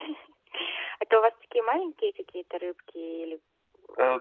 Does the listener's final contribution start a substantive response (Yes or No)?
Yes